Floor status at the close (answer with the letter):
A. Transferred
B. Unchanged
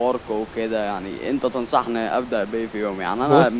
B